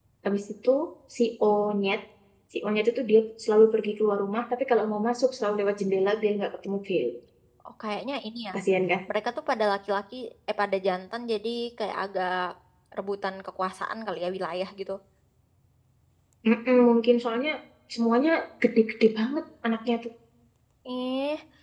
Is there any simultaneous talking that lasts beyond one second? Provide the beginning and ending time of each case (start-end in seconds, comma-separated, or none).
none